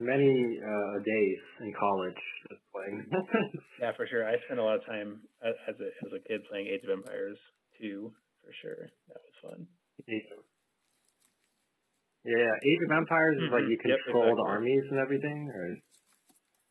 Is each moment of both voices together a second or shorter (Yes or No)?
No